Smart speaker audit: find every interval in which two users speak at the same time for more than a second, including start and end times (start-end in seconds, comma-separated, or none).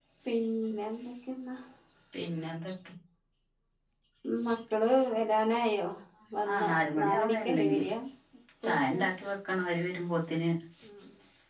6.5-7.8